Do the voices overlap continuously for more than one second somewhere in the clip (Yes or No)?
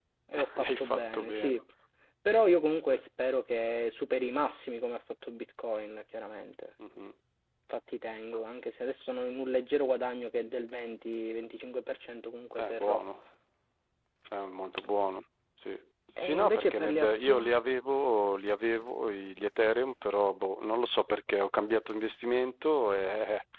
Yes